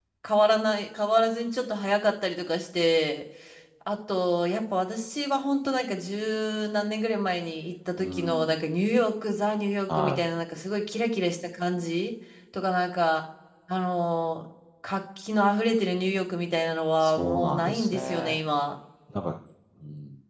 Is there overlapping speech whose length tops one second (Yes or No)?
Yes